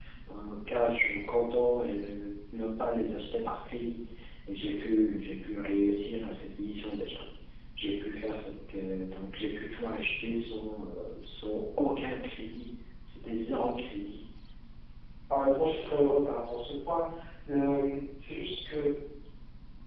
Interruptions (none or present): none